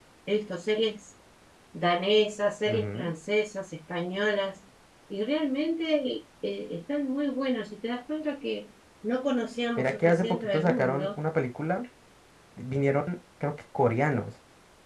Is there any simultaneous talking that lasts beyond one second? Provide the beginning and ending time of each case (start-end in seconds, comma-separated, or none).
9.8-11.2